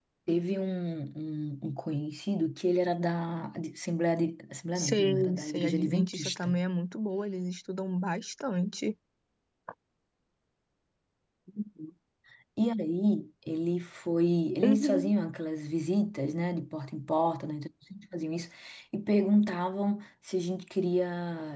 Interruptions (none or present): present